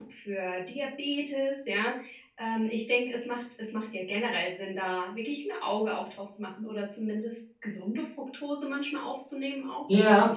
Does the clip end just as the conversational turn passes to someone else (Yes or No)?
No